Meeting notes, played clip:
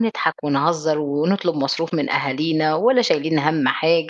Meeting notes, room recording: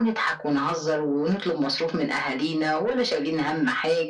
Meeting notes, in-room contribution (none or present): none